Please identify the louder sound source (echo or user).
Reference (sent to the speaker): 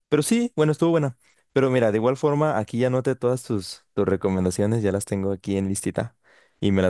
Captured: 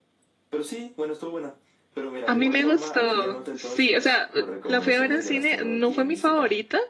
user